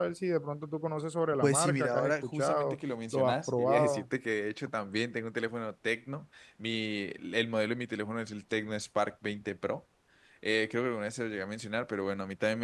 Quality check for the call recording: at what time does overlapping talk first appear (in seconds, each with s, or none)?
1.4 s